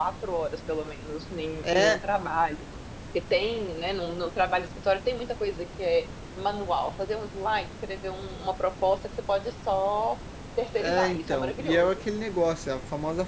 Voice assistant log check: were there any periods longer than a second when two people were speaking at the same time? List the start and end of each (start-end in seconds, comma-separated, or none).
10.8-12.0